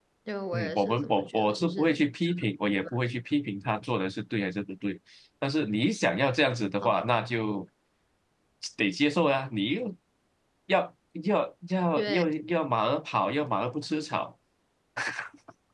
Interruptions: present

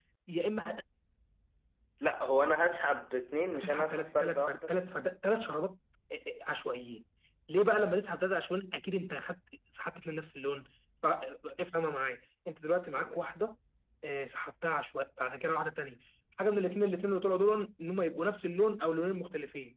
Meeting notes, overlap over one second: present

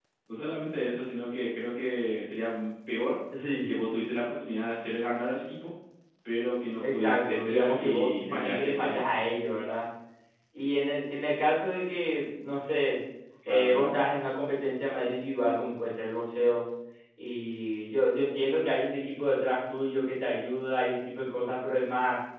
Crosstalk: present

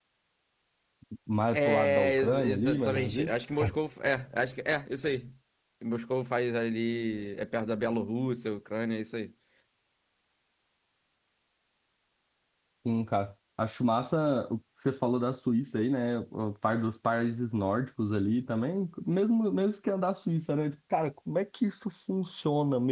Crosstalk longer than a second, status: present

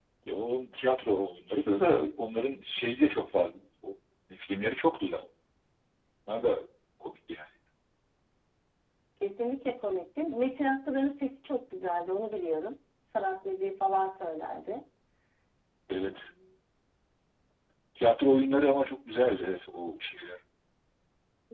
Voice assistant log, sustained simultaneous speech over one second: none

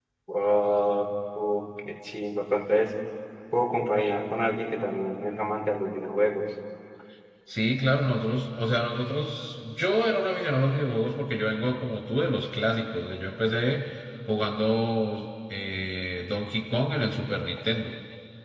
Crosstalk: none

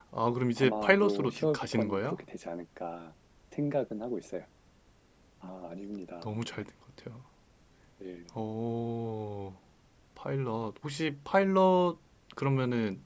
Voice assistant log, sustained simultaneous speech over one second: present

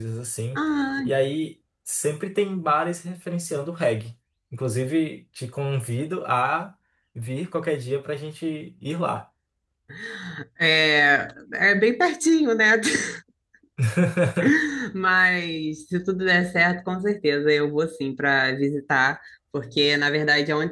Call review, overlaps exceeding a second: none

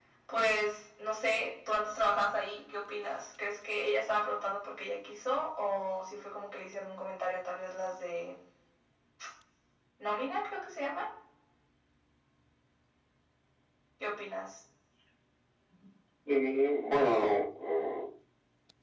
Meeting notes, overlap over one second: none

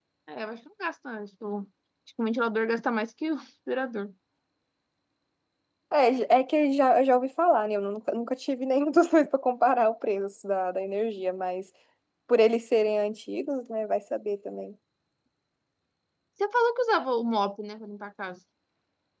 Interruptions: none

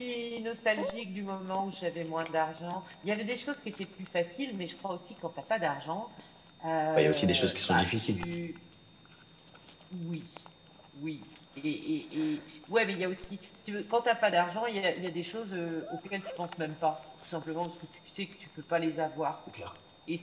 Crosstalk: present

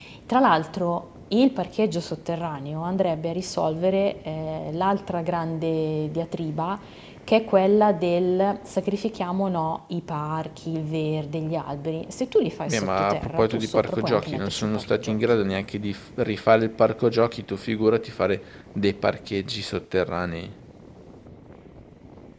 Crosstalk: present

